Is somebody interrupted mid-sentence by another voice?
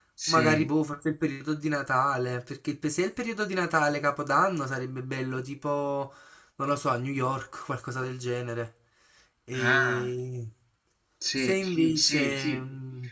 Yes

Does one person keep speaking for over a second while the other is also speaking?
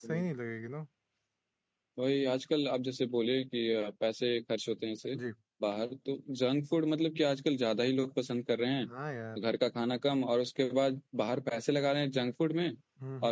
No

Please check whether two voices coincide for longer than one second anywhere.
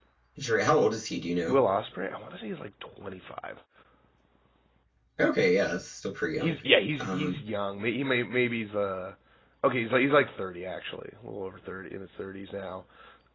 No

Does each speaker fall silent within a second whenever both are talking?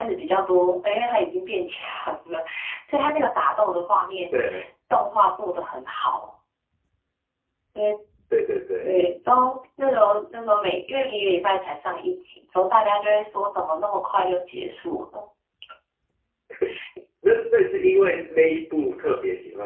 Yes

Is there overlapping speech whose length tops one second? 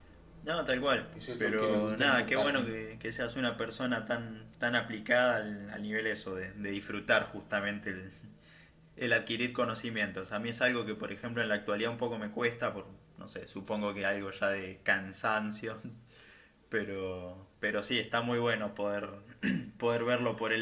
Yes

